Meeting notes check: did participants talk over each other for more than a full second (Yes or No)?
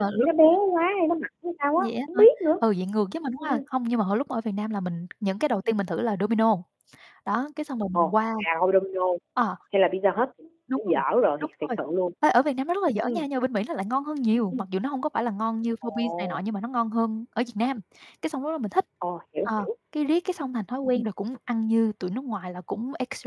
No